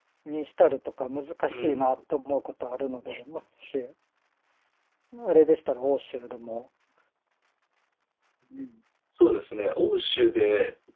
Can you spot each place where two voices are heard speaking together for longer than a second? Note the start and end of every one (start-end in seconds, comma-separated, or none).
none